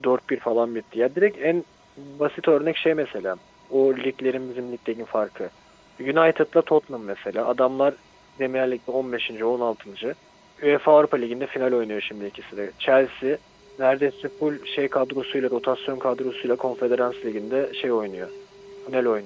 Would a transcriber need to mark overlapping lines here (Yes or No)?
No